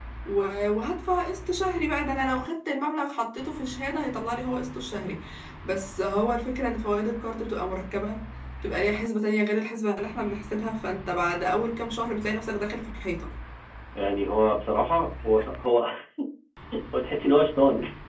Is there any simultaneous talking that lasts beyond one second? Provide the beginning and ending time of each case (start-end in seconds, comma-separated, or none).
none